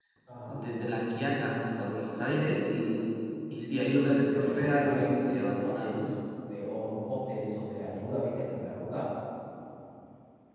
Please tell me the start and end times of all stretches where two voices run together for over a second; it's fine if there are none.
4.0-6.0

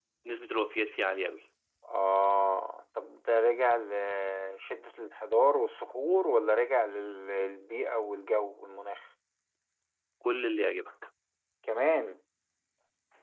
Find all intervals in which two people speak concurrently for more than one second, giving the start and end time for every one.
none

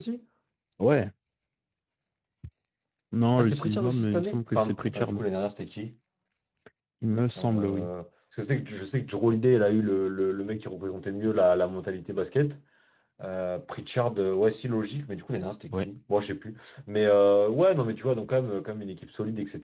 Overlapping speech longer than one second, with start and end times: 3.4-5.1

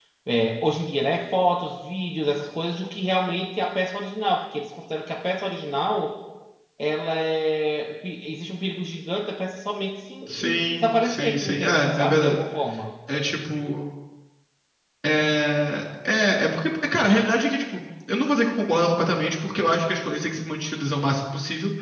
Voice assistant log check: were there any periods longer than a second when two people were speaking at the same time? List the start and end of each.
10.3-12.4

